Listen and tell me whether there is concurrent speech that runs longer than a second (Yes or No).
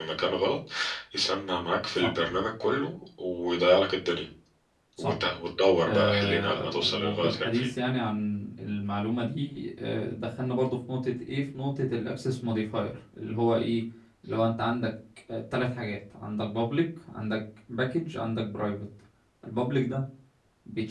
Yes